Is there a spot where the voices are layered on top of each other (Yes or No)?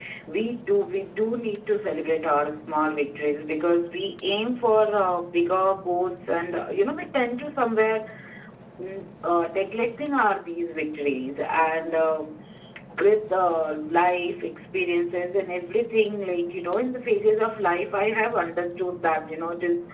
No